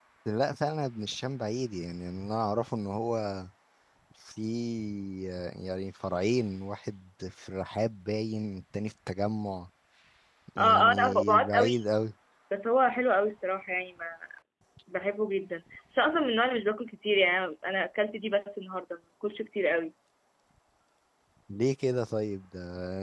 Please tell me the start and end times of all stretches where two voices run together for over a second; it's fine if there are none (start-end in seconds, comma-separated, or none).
10.6-11.8